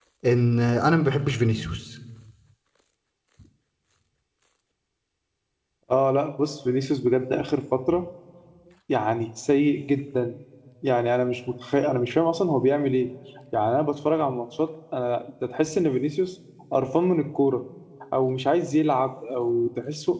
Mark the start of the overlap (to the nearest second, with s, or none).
none